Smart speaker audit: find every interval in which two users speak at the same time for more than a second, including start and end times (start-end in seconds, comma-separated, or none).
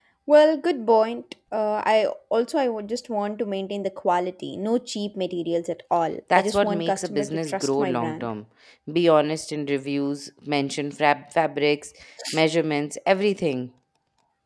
6.3-8.3